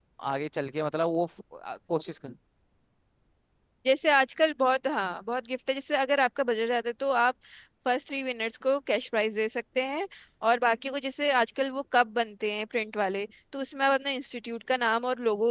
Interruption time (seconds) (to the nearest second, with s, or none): none